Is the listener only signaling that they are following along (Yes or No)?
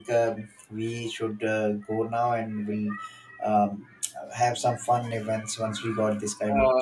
No